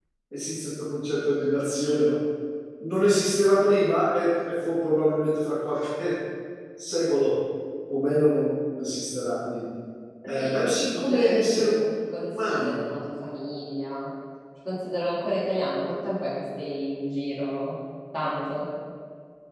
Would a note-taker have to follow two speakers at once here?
Yes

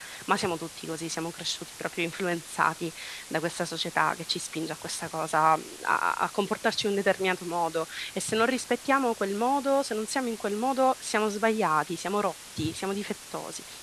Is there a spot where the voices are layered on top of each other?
No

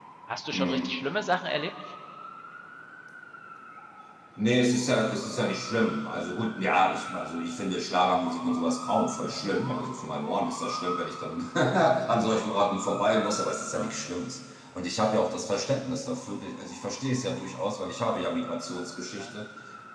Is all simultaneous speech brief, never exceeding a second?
Yes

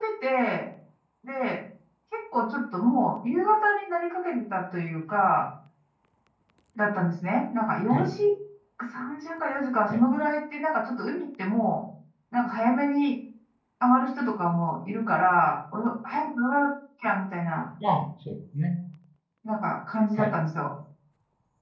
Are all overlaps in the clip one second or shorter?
Yes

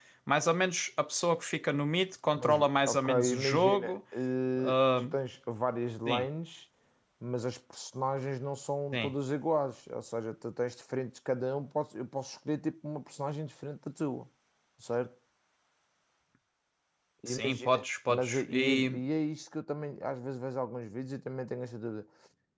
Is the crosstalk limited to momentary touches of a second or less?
No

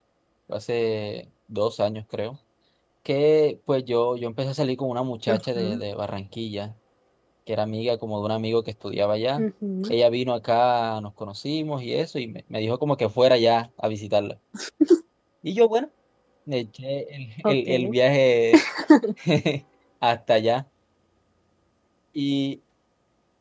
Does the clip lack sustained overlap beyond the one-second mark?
Yes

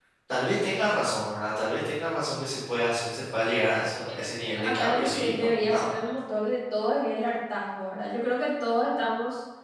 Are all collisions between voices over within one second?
No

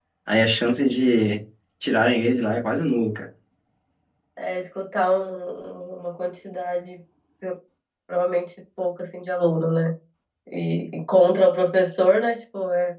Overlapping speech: No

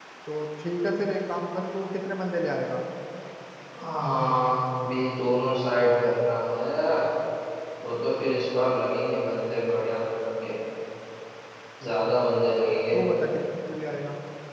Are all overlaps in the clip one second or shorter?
Yes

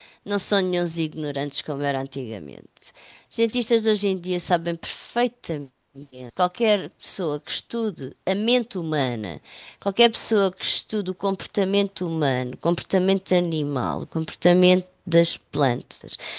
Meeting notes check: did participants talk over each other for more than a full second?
No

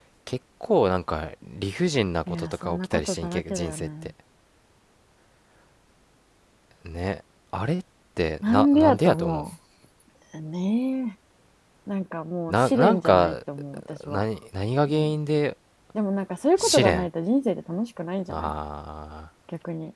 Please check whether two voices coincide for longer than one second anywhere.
Yes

